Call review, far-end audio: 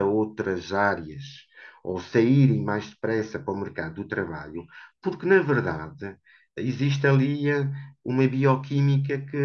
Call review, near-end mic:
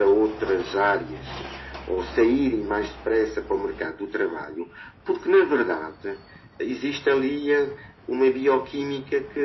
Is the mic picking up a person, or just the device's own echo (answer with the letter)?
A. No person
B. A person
A